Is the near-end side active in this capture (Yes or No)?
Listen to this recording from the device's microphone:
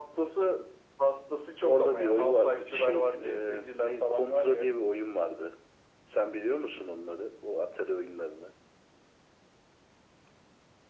No